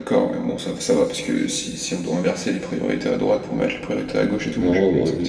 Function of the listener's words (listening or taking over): taking over